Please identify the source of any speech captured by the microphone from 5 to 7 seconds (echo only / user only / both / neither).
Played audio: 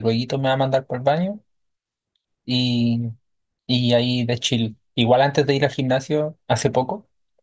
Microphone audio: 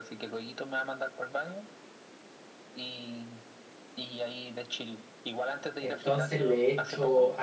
both